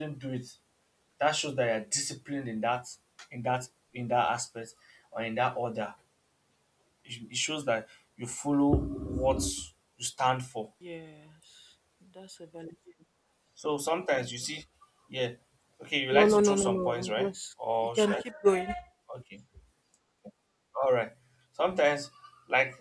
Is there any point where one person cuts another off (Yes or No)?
Yes